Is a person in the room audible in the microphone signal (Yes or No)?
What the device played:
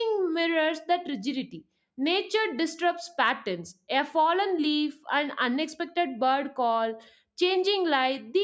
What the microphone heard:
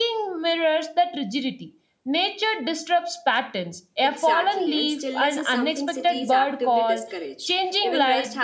Yes